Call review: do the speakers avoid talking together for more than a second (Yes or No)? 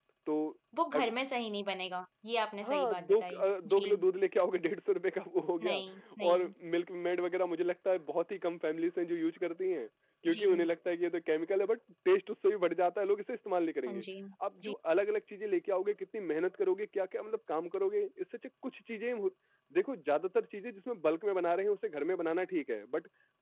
No